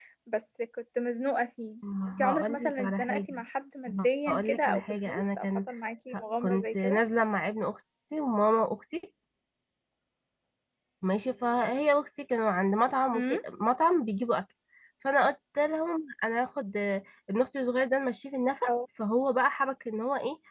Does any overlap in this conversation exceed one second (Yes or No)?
Yes